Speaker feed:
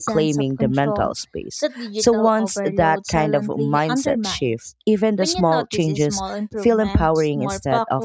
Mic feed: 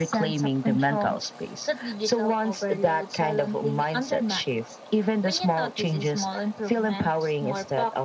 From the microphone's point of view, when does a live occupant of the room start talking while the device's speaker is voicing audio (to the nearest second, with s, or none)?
none